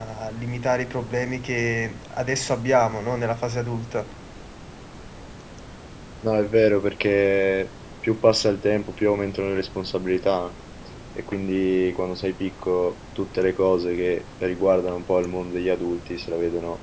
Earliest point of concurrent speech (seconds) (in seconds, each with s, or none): none